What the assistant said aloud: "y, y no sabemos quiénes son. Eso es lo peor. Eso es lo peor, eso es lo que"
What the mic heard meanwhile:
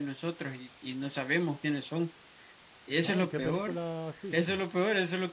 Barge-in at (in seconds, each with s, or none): 3.0 s